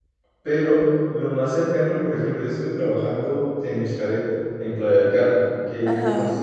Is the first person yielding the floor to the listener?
No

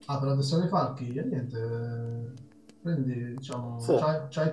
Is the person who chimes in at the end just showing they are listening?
Yes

